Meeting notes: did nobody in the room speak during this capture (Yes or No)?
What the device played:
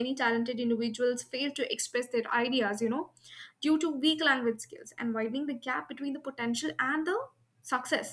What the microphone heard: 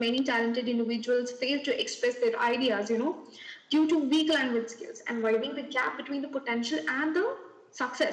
Yes